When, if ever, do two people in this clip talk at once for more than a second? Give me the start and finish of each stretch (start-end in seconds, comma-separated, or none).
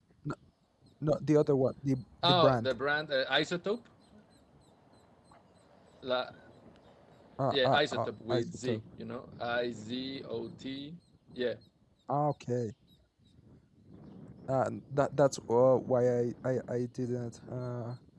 7.5-8.8